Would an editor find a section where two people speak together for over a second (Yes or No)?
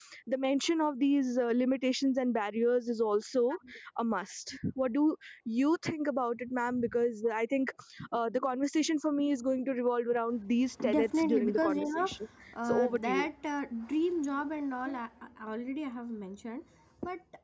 Yes